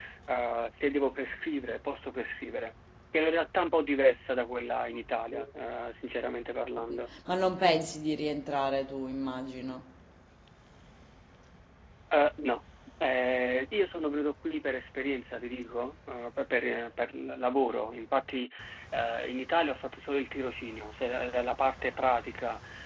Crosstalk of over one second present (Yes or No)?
No